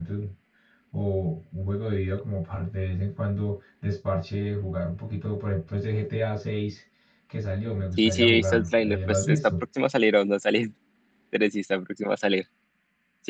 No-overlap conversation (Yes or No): No